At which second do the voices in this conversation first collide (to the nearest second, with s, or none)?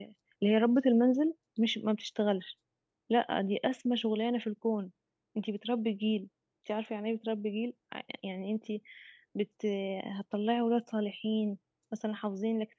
none